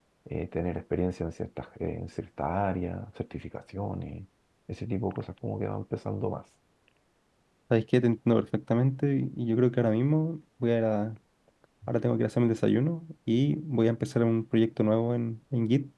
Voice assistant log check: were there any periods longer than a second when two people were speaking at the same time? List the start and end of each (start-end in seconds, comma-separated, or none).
none